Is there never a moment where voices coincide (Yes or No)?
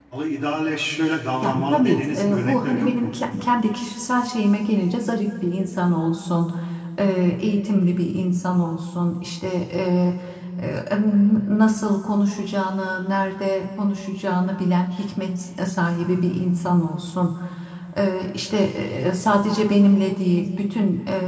No